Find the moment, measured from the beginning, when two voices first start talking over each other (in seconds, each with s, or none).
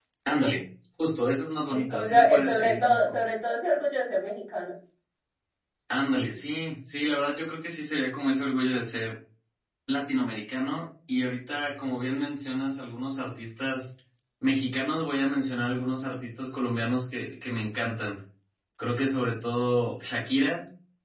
1.7 s